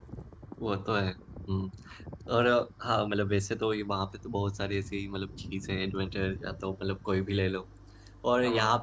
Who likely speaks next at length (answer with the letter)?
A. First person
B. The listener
A